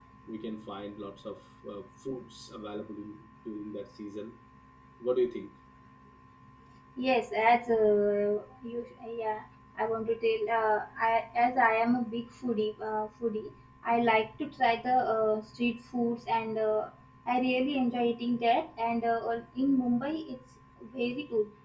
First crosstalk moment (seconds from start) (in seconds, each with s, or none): none